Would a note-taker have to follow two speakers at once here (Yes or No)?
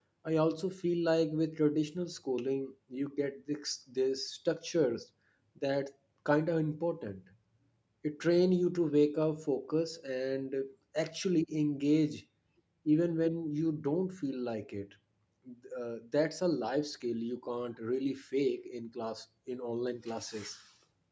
No